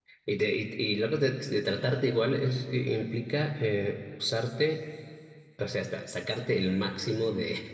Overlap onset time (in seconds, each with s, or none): none